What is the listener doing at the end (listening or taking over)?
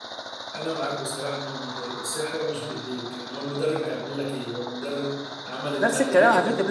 taking over